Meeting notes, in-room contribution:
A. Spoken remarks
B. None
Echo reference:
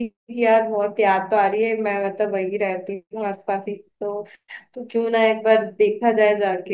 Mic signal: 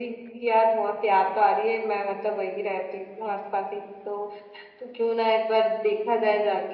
B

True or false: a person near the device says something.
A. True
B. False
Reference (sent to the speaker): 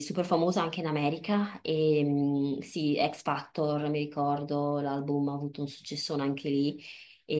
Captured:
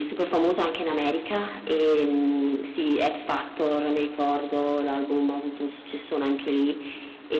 B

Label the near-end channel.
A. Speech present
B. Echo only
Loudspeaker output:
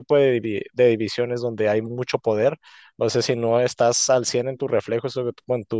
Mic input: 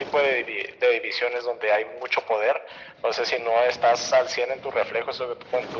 B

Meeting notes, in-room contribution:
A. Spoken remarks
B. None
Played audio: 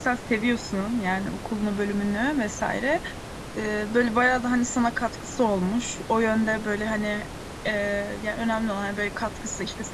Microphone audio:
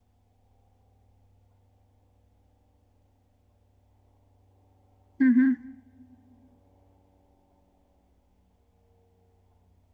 A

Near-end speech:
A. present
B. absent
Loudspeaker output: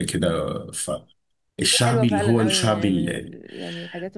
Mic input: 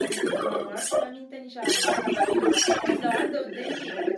A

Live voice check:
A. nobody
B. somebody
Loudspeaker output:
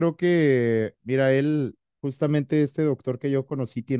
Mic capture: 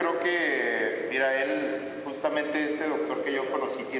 A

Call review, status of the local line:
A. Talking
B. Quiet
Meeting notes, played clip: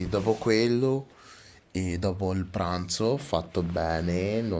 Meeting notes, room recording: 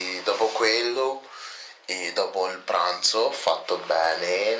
B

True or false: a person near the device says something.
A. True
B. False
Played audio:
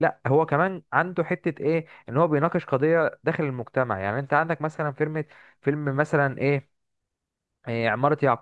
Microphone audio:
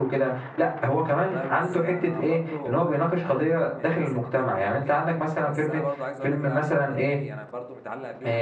A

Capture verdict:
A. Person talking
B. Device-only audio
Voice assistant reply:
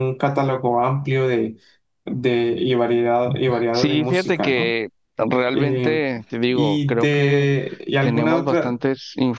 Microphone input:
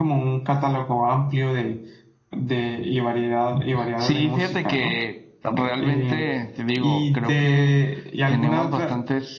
B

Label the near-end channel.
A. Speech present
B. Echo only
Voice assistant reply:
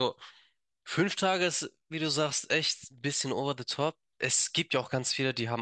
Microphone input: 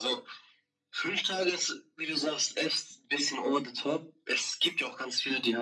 B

